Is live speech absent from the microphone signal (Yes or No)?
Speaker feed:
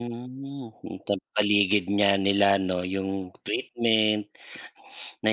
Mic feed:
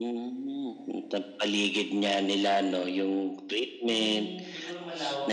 No